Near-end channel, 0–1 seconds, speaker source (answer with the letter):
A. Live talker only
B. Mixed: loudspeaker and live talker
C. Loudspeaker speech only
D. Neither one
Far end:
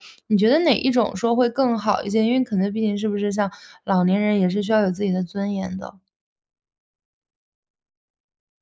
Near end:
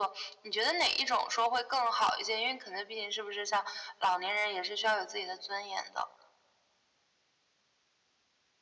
C